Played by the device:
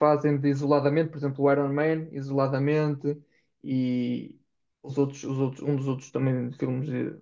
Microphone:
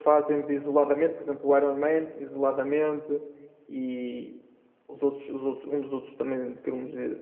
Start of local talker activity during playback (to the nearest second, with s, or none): none